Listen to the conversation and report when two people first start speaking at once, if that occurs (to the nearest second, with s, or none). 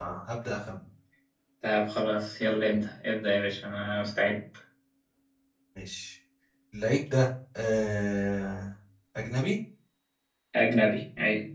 none